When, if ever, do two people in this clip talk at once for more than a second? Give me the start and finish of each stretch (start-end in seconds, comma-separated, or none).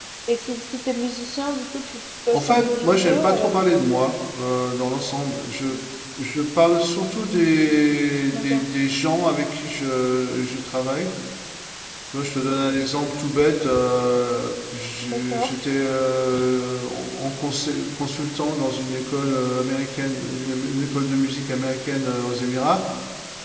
2.3-3.5